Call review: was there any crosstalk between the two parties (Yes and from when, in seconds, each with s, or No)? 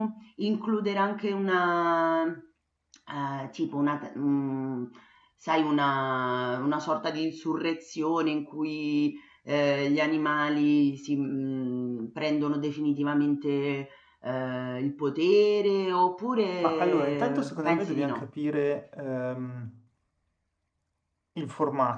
Yes, from 16.6 s